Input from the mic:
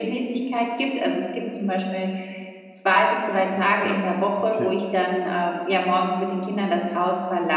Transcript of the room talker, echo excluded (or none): Ach, krass, okay.